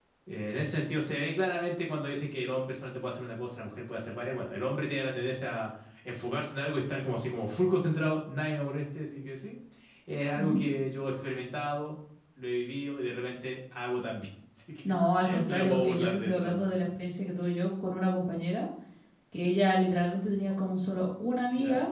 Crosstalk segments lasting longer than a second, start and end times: 15.5-16.7

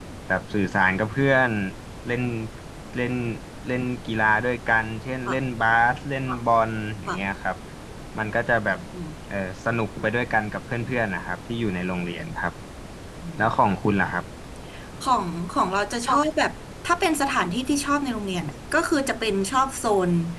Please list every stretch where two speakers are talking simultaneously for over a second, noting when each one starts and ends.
none

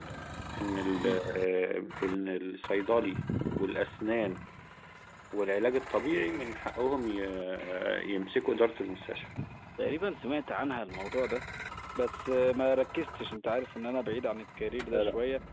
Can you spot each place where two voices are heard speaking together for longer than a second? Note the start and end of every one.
none

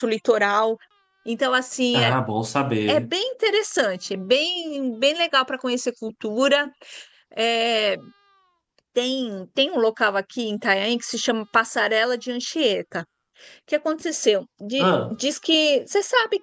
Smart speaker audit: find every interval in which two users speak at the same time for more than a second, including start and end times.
none

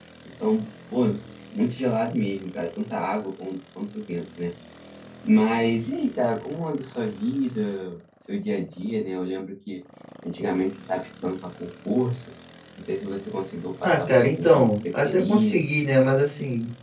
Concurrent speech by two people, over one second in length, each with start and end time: 13.8-15.6

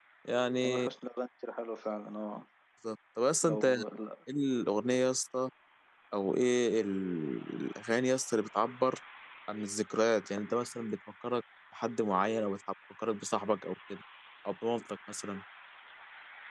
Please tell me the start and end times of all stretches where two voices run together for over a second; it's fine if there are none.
none

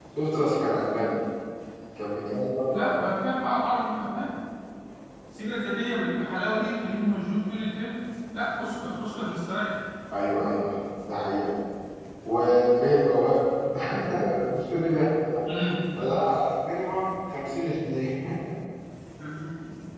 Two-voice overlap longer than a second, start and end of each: none

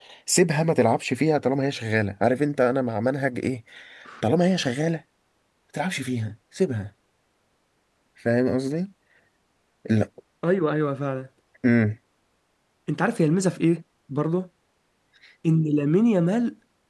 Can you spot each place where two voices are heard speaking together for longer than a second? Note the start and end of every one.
none

